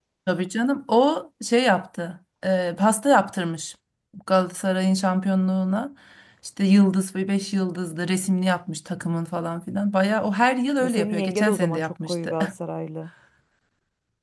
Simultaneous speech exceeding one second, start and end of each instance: 10.8-12.3

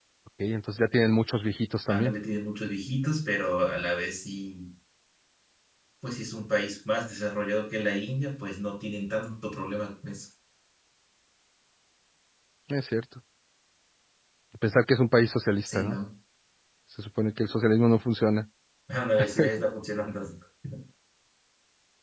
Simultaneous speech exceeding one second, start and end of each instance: none

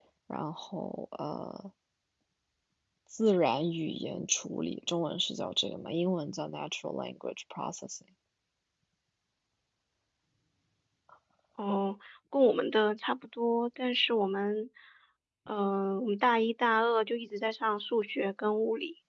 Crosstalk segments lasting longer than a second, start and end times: none

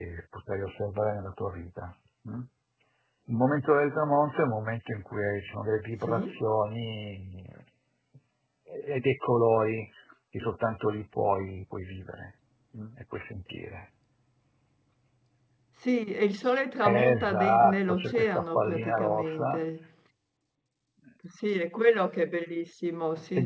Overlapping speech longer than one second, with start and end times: 16.8-19.6

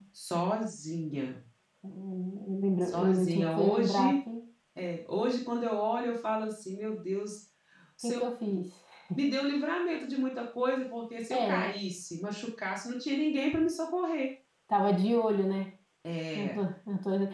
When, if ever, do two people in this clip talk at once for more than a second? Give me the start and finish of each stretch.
2.8-4.2

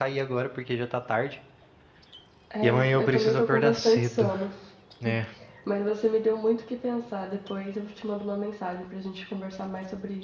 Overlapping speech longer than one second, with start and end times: 2.6-4.2

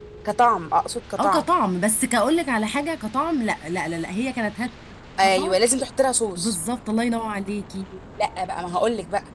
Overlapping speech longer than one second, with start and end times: none

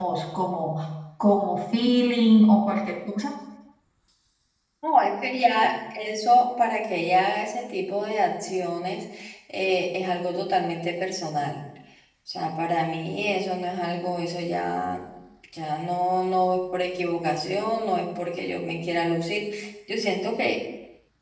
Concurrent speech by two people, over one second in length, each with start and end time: none

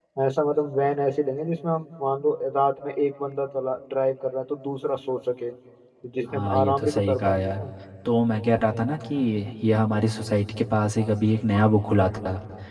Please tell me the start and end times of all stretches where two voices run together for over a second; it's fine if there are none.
6.3-7.6

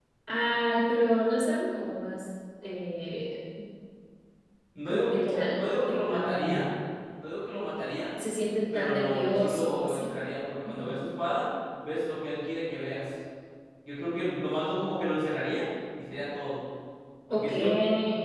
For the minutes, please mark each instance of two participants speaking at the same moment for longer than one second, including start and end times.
4.9-6.7, 8.7-10.1

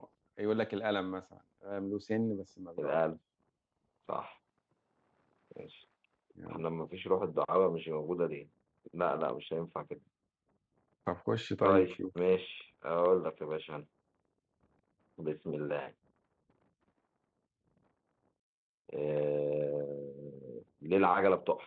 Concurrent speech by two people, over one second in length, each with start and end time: none

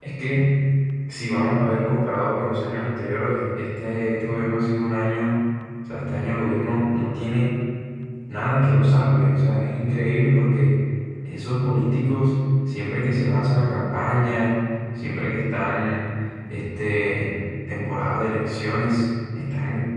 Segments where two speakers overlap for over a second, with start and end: none

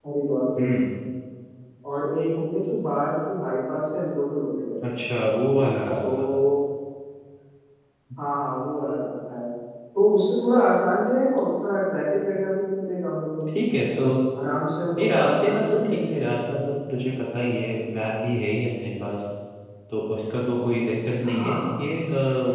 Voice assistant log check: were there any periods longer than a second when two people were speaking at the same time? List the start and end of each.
15.0-16.2

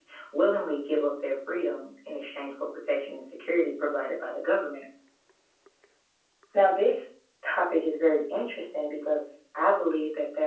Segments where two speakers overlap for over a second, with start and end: none

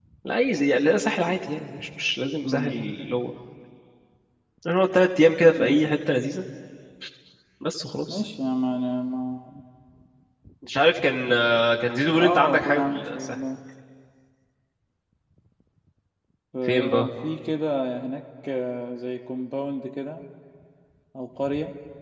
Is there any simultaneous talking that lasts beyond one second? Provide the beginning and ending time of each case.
12.2-13.3

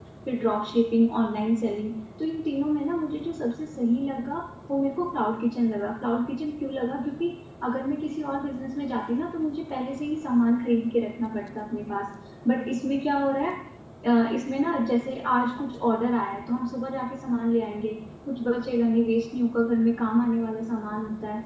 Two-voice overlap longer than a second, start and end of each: none

